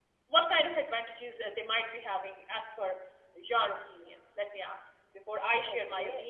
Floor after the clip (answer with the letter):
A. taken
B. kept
A